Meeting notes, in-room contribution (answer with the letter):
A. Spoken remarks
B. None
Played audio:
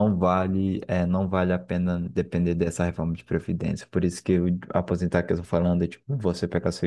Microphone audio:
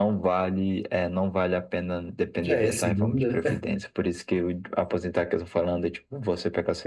A